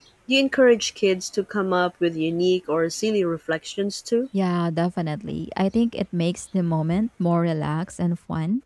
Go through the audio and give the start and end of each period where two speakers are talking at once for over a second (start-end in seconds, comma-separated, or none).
none